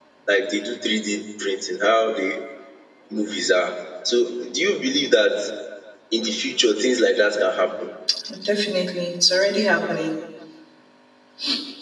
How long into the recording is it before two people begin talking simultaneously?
none

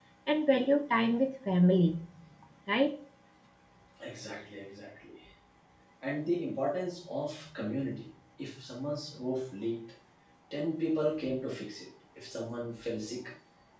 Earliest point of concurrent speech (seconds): none

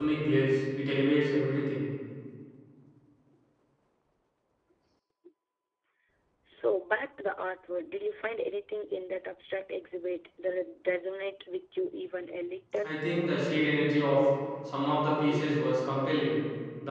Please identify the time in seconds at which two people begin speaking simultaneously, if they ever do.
none

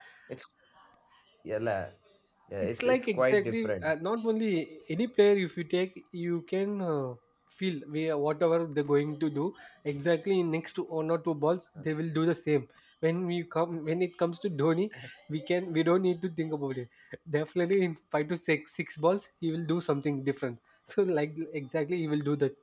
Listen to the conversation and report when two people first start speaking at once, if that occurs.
3 s

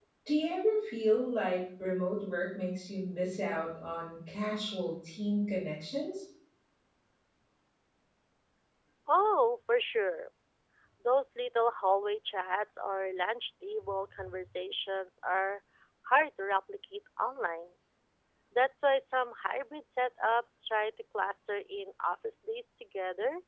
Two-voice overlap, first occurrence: none

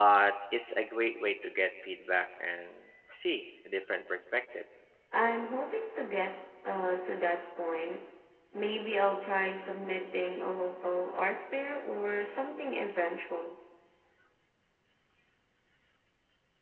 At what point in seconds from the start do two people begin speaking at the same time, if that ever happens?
none

